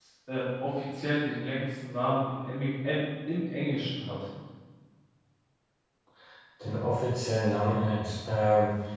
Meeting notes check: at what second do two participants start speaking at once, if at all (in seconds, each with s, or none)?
none